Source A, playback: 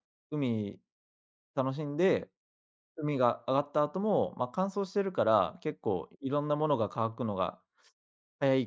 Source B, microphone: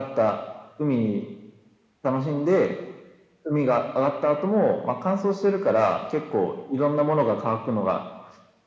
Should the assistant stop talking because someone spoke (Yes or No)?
No